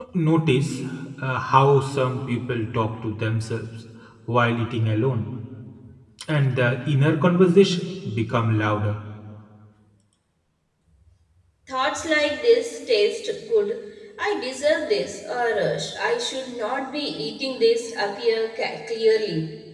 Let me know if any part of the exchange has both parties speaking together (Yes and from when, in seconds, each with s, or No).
No